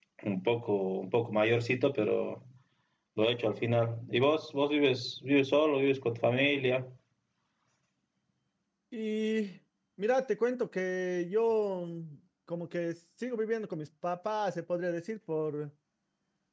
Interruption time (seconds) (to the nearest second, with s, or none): none